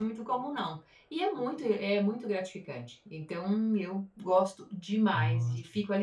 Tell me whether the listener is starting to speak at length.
No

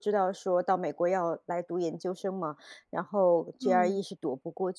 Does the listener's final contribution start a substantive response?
No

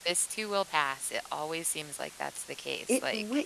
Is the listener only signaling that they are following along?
No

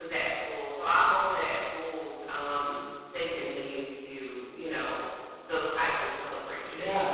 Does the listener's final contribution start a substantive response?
Yes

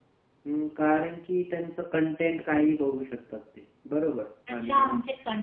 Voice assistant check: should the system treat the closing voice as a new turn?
Yes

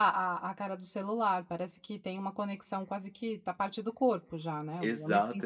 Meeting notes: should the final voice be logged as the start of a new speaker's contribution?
Yes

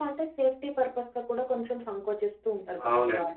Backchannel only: No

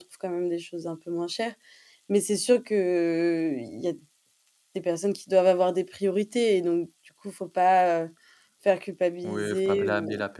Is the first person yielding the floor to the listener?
Yes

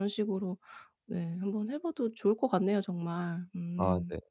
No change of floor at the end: No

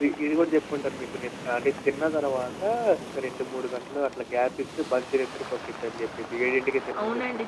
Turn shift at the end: Yes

